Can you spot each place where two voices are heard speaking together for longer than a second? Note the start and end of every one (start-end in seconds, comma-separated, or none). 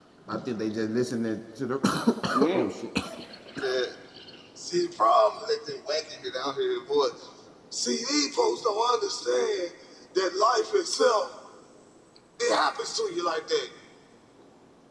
none